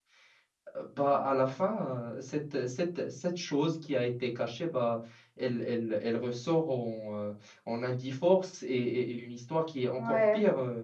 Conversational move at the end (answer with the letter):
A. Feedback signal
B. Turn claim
B